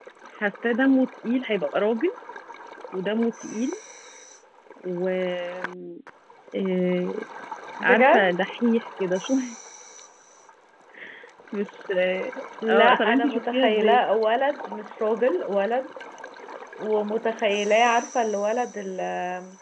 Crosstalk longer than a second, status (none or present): present